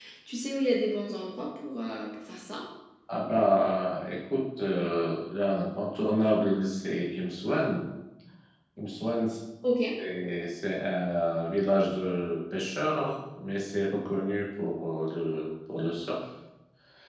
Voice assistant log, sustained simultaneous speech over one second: none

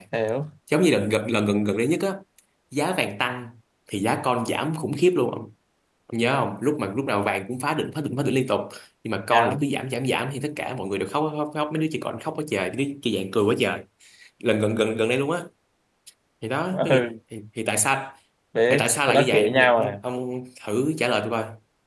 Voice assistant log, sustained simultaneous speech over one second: present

